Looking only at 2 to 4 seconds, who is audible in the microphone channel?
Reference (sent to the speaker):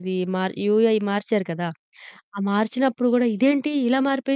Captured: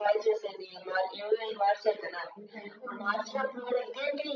both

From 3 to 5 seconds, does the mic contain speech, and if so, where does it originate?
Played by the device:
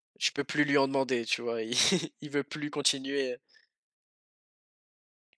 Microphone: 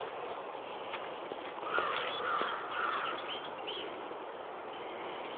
neither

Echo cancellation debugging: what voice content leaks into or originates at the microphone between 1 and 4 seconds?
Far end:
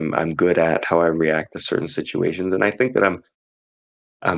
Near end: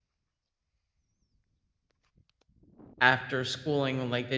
user only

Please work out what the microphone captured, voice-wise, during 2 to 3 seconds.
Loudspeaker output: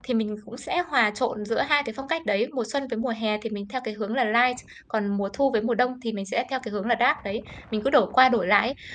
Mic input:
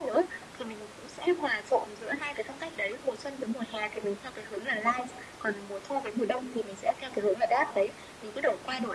echo only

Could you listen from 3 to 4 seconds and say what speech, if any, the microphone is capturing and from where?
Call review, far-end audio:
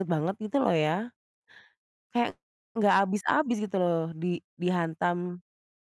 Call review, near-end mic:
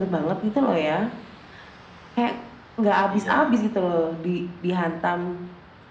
both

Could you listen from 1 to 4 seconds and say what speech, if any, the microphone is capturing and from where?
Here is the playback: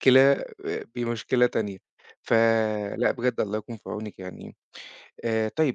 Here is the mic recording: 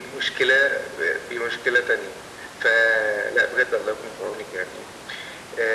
echo only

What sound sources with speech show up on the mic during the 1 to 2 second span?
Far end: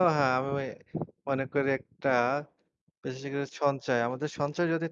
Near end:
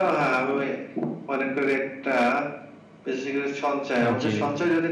echo only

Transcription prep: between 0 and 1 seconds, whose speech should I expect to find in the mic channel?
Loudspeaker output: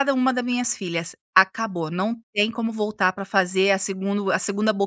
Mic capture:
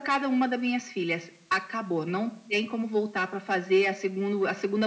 echo only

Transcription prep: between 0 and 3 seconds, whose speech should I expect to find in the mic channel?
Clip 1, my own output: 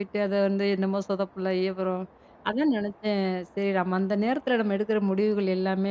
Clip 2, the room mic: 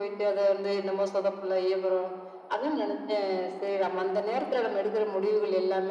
echo only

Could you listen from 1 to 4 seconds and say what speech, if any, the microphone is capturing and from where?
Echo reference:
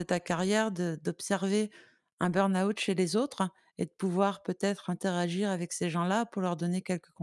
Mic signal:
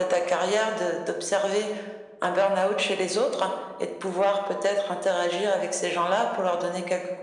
echo only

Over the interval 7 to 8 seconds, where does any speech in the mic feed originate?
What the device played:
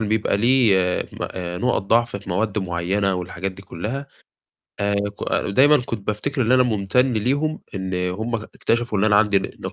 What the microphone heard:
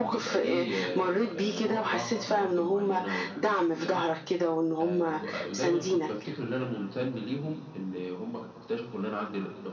echo only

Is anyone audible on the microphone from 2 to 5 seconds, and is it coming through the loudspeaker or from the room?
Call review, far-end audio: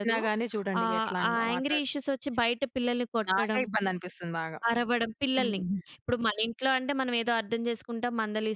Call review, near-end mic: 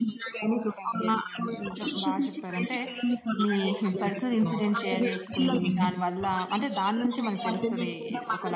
both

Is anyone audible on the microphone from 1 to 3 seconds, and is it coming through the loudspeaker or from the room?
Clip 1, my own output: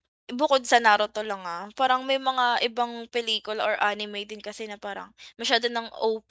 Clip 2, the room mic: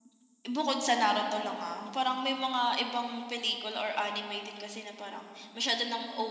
echo only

